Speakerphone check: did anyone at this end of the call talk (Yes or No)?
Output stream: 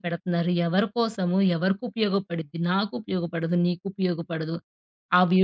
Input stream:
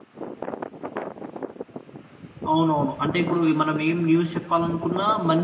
Yes